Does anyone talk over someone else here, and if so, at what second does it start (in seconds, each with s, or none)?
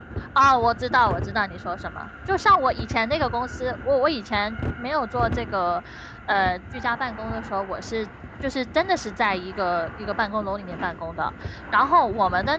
none